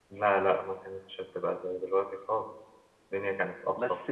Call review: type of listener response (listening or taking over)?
taking over